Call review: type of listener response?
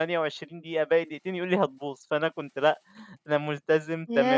taking over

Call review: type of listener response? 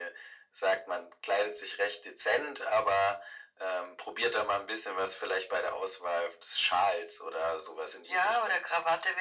taking over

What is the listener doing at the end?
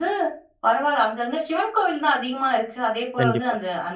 listening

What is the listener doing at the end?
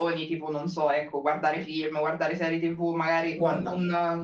listening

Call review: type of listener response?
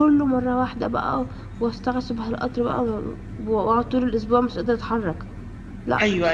taking over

